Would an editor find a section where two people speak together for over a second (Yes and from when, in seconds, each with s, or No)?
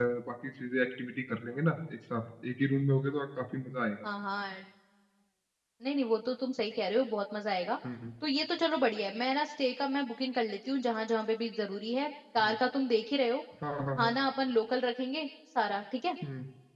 No